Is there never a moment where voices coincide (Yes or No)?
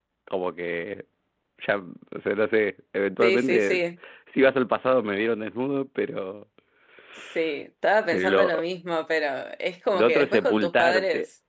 No